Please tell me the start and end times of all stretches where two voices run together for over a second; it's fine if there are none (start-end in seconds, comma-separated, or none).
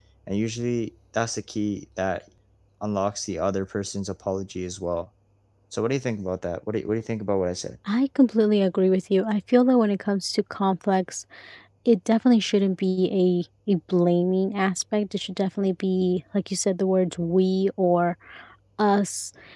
none